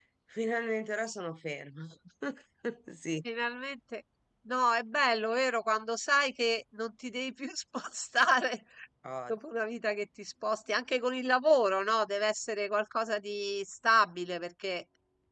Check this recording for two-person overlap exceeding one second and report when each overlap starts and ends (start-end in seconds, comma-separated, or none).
none